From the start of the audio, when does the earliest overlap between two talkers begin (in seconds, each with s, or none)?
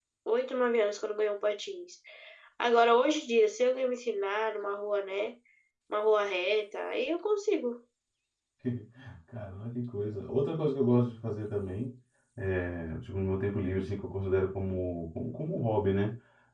none